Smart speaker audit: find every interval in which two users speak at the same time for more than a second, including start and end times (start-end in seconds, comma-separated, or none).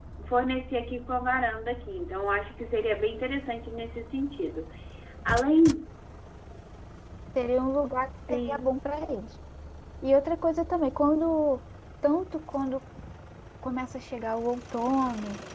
none